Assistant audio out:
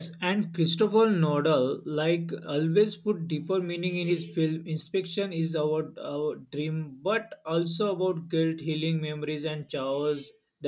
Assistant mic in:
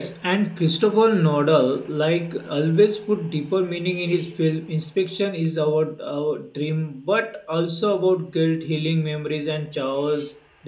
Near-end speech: none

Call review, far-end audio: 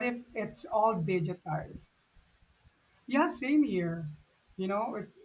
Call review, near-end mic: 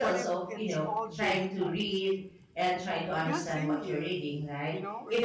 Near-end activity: present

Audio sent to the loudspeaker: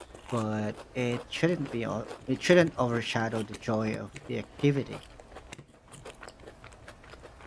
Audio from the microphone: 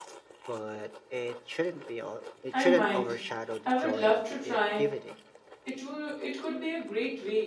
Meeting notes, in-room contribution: present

